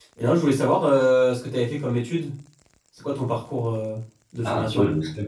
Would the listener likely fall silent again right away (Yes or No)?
No